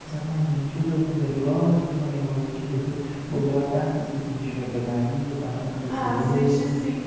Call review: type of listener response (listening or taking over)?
taking over